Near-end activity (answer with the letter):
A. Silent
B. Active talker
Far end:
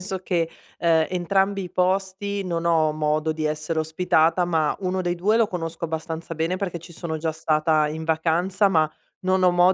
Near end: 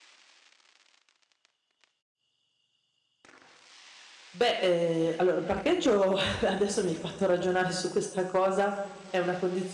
B